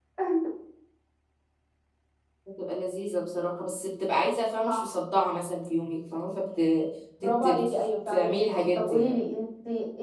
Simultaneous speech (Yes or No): Yes